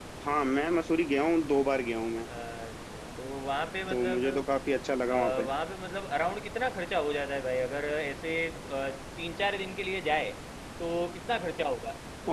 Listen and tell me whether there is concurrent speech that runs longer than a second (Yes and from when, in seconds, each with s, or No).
No